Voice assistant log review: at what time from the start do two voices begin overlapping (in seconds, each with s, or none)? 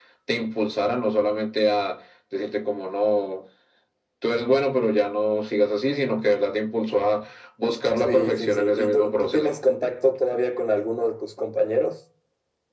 8.0 s